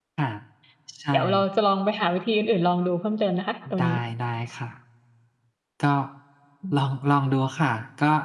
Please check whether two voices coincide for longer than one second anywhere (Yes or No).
No